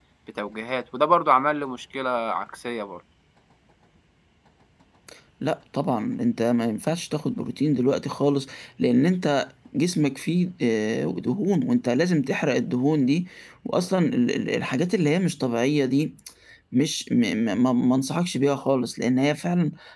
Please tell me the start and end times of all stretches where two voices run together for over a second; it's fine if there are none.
none

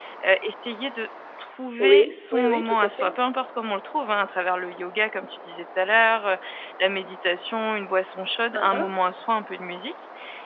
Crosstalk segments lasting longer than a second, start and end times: 1.8-3.1

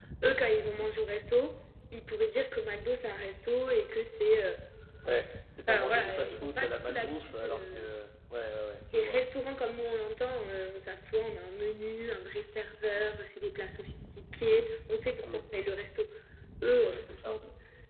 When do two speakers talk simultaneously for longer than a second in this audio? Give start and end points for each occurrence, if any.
5.7-7.9

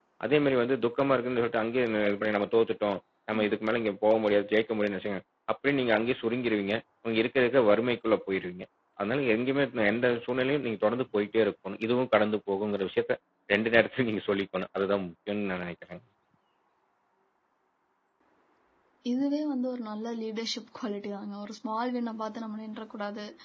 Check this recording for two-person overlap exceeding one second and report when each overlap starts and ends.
none

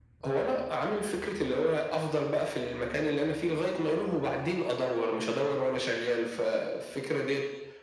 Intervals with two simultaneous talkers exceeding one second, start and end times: none

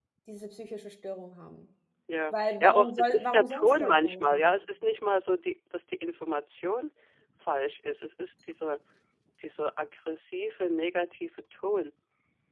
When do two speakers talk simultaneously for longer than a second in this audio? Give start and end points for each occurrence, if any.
2.3-4.5

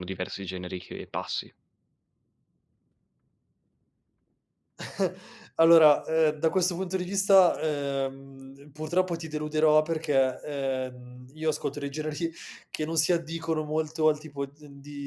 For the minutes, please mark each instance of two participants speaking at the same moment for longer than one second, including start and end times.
none

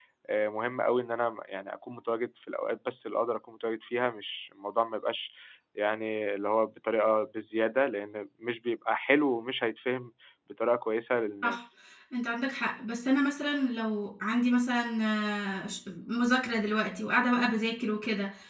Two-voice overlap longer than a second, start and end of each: none

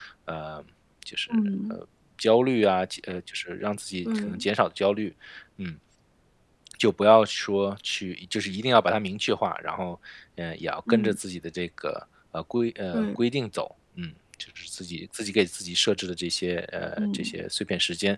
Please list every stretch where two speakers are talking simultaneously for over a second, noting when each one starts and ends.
none

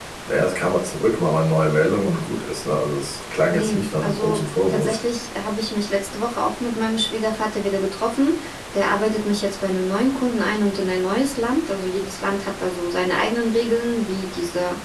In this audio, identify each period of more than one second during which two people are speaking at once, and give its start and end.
3.5-5.0

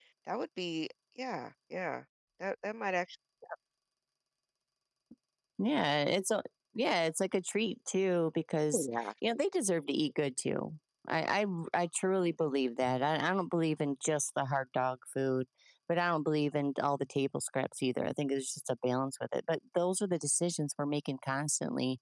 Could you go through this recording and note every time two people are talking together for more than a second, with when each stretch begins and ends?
none

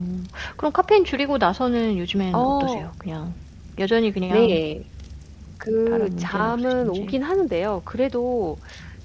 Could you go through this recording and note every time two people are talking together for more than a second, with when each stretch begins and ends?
5.9-7.1

